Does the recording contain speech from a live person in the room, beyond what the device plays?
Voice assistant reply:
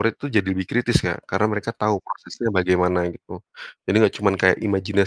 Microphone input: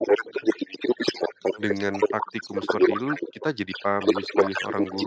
Yes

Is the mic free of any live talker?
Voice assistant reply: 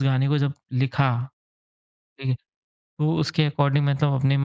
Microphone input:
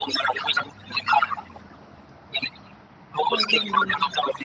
No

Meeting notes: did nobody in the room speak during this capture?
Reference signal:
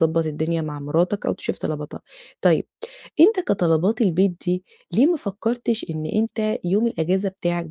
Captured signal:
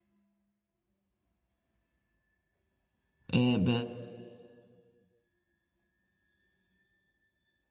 No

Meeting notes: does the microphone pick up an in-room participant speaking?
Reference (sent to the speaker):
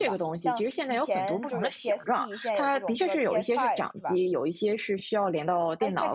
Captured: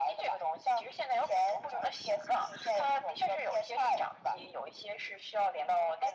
No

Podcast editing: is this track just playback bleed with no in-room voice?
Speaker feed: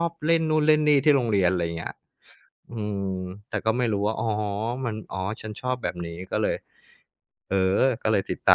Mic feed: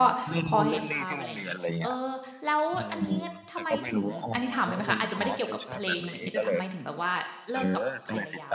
No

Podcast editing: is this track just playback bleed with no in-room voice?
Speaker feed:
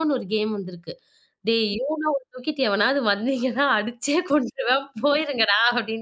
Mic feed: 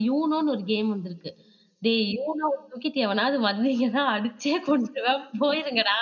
Yes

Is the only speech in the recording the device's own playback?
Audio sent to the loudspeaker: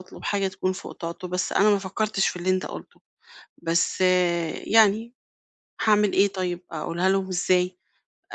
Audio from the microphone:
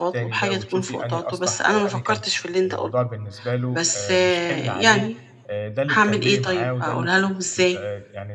No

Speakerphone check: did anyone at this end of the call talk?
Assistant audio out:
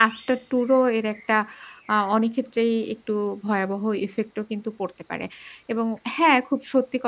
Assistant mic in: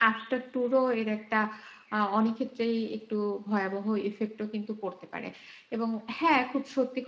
No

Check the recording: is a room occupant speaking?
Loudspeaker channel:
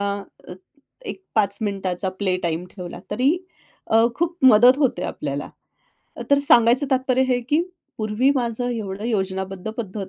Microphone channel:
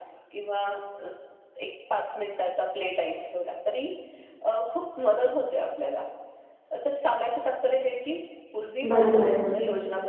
Yes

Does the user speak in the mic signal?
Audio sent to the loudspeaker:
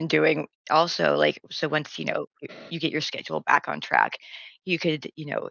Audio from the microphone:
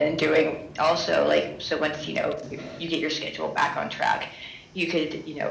No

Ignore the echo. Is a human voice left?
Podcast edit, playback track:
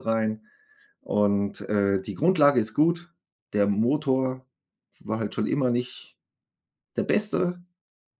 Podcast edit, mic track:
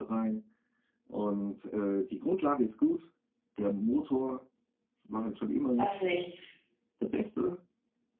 Yes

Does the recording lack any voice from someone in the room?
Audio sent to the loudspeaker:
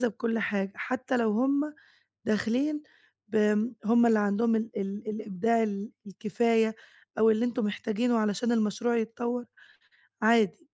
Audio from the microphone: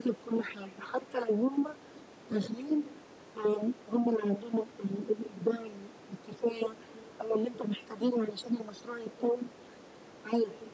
Yes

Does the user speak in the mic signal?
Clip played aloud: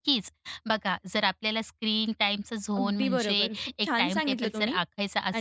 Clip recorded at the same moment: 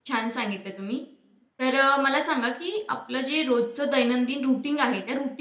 Yes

